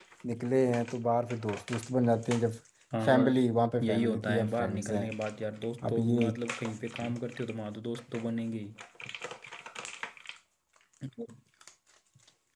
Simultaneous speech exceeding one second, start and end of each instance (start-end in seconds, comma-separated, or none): 3.8-5.0